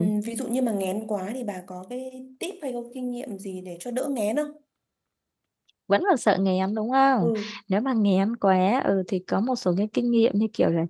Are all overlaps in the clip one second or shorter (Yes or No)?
Yes